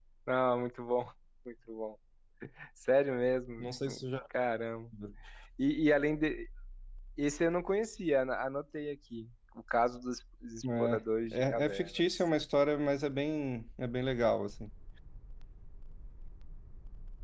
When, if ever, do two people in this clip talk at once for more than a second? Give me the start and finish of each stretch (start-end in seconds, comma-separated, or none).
10.8-12.0